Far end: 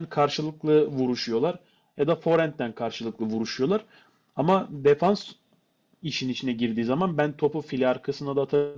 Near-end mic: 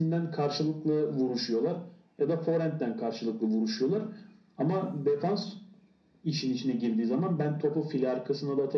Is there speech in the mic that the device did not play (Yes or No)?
No